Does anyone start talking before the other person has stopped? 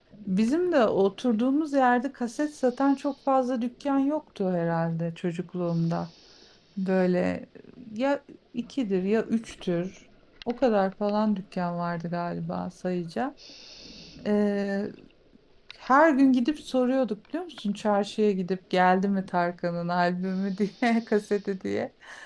No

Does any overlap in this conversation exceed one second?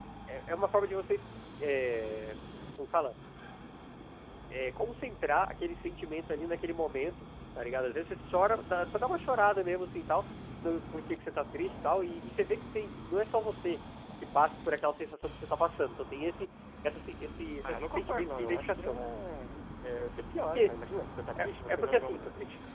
Yes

